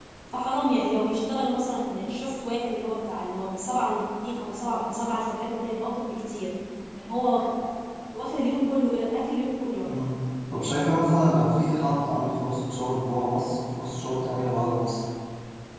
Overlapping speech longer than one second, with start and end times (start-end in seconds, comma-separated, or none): none